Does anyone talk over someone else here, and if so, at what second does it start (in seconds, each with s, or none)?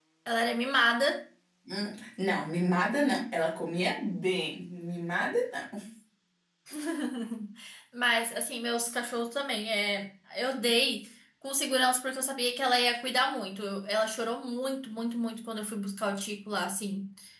none